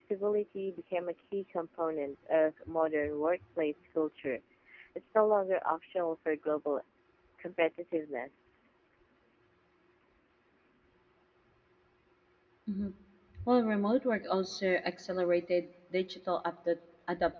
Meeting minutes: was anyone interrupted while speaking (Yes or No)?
No